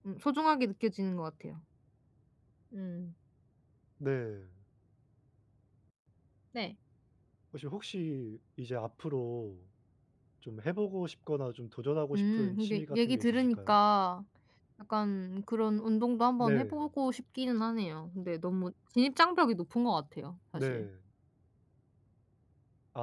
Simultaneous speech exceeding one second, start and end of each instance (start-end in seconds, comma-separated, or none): 12.2-13.8